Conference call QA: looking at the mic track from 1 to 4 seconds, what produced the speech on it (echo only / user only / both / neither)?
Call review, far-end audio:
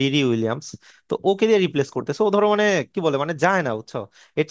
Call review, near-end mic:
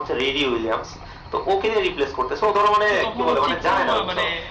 both